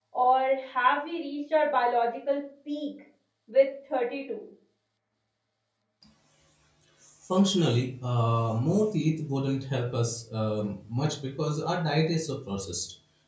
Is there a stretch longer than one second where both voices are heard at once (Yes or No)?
No